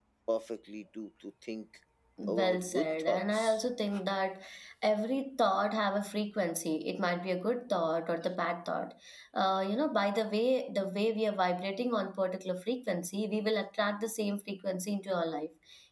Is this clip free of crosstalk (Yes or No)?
No